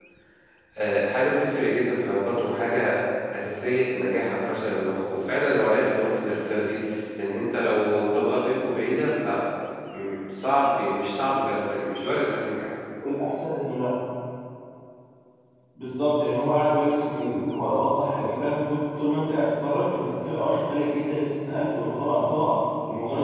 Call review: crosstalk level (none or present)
none